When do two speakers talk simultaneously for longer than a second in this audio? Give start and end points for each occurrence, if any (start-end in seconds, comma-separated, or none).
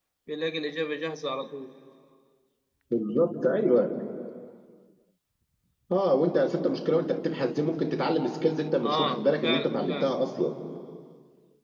8.8-10.1